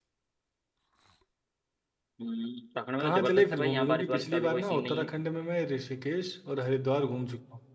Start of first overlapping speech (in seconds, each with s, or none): 3.0 s